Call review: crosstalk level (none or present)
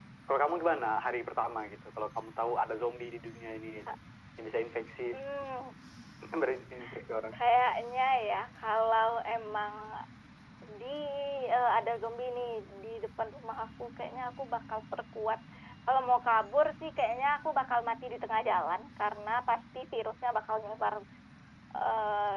none